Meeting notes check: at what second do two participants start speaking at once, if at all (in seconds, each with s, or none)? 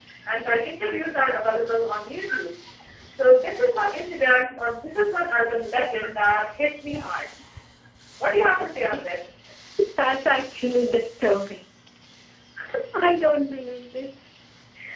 none